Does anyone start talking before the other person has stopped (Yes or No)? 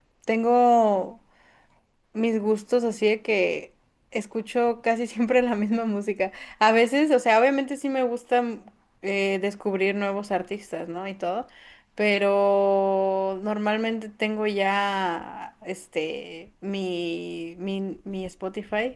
No